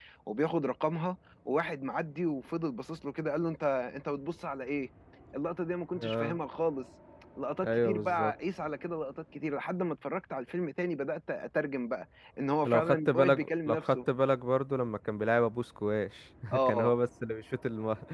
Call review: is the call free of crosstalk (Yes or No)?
No